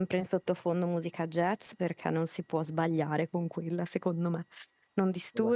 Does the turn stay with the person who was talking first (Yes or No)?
Yes